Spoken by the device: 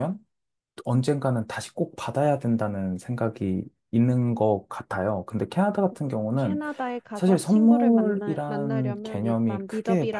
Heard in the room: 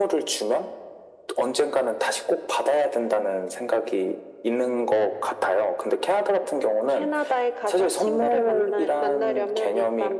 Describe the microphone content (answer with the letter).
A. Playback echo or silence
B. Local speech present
A